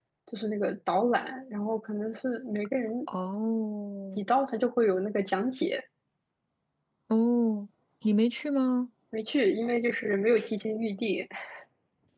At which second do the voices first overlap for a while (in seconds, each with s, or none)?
none